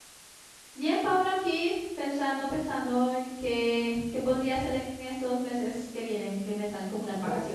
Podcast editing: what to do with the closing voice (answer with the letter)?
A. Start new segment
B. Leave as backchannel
A